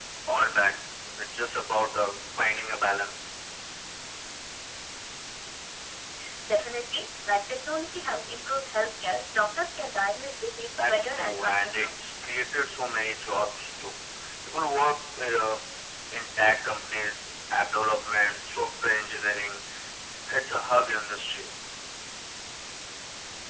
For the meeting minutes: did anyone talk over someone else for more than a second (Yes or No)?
Yes